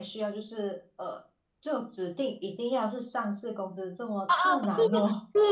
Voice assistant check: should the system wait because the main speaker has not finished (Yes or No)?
No